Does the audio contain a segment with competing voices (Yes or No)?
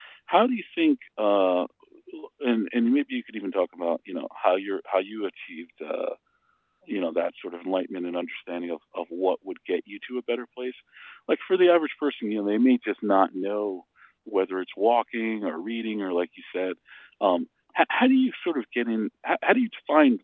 No